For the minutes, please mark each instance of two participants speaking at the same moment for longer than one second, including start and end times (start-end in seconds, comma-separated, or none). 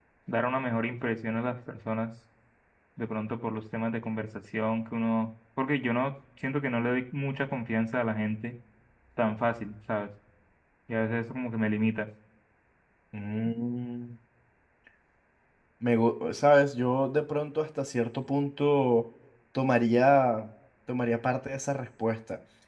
none